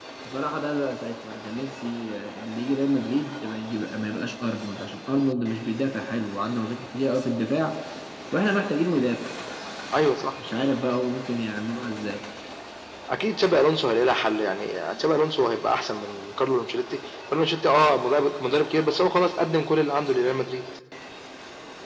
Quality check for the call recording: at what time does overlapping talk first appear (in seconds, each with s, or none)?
none